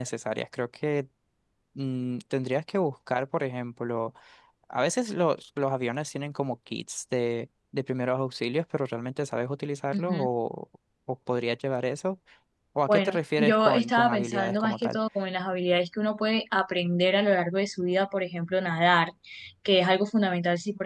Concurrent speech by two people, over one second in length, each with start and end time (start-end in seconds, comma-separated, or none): 12.9-15.0